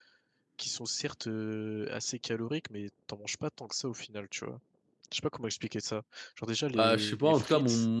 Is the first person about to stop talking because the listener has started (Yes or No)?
Yes